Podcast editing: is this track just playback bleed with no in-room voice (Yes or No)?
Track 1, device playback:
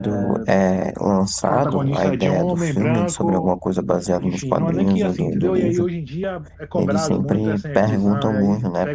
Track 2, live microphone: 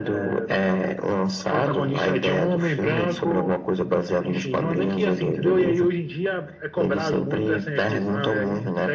Yes